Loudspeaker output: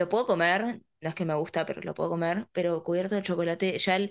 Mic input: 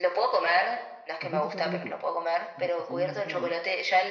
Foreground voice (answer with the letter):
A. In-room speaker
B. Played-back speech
B